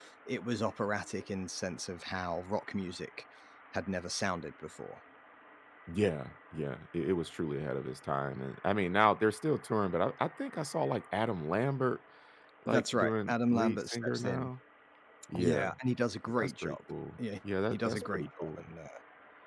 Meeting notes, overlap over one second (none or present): present